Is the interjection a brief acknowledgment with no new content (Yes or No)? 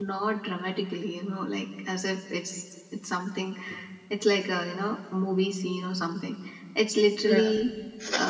Yes